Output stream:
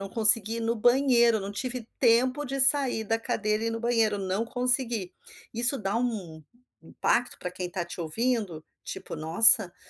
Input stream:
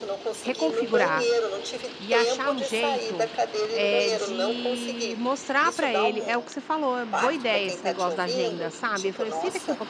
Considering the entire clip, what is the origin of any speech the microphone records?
both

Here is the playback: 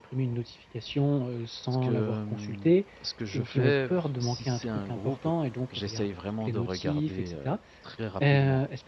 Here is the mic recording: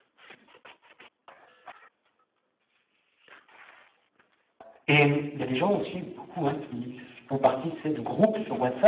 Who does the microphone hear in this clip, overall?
user only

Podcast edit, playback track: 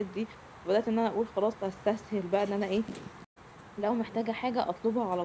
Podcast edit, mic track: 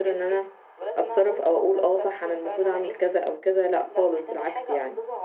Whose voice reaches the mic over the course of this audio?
both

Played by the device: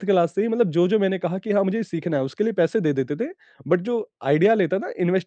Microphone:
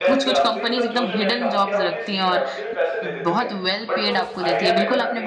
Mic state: both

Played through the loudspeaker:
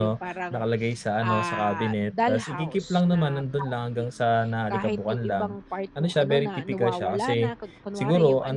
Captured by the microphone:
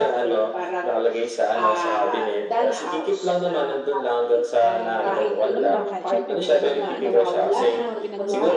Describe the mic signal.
both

